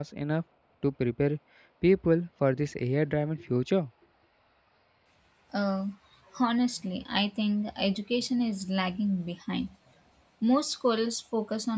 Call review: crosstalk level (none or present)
none